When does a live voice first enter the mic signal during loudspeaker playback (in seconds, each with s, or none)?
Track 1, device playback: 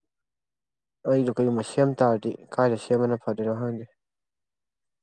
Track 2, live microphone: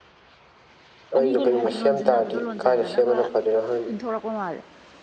1.2 s